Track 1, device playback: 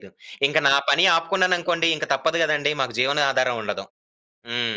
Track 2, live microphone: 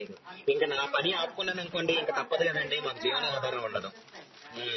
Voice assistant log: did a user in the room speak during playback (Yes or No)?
Yes